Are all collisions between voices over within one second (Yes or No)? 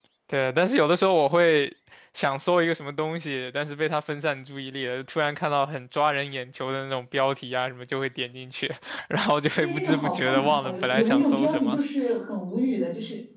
No